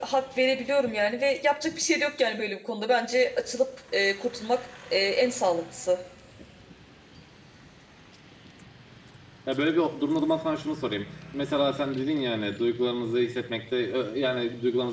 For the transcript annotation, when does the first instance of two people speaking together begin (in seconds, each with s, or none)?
none